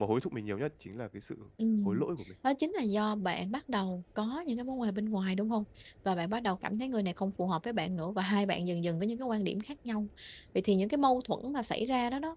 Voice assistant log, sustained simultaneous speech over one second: none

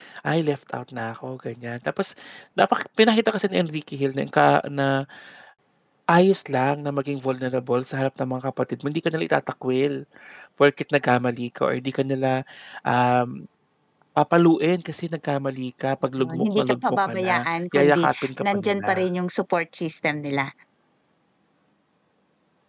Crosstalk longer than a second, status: present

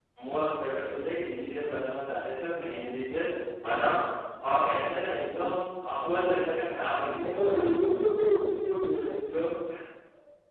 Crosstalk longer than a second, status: none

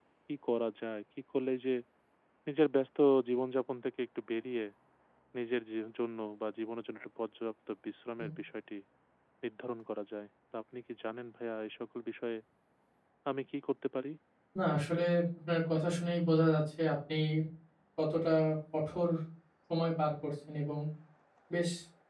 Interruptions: none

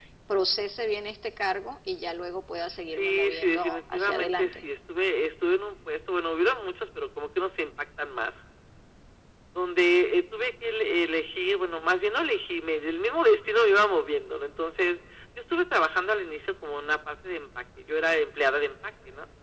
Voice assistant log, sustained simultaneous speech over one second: present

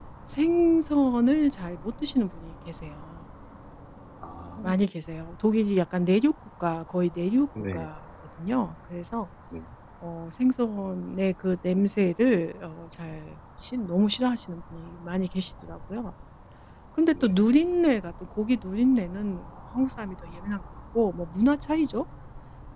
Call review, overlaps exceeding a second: none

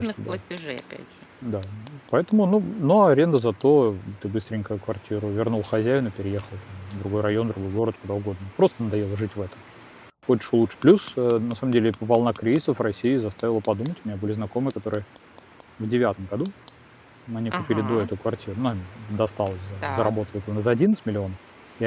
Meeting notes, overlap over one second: none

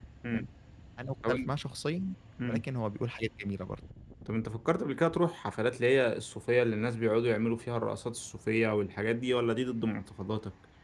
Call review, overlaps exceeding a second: none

